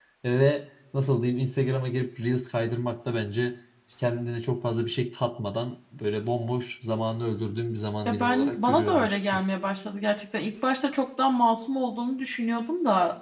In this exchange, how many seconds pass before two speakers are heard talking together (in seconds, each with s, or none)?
8.1 s